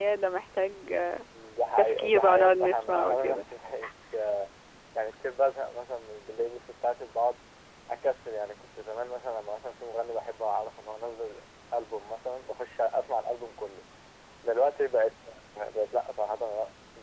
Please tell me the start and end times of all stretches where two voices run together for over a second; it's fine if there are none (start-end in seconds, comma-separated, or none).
1.8-3.4